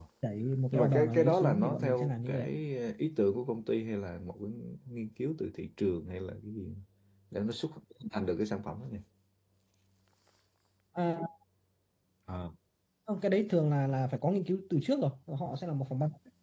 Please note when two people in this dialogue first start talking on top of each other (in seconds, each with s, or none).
0.7 s